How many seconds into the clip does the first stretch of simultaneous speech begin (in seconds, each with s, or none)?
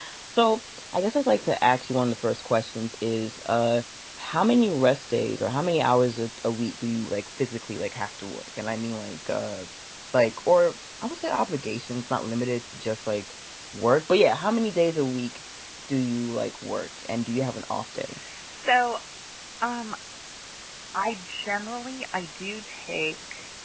none